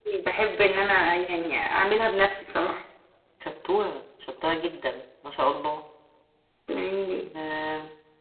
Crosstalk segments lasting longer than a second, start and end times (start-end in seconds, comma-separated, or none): none